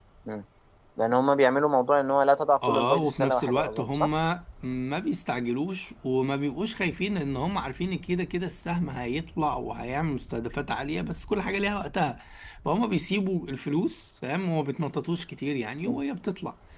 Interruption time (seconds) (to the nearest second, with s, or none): 3 s